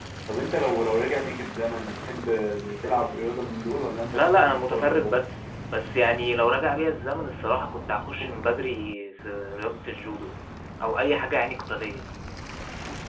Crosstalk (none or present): present